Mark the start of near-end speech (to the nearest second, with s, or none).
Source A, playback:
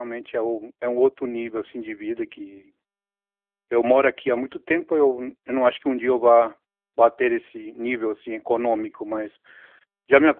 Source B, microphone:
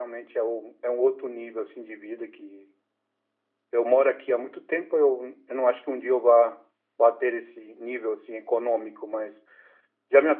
none